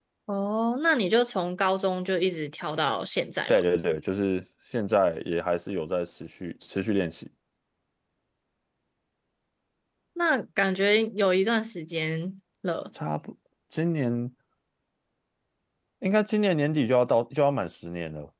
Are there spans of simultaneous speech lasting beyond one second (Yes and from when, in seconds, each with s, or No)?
No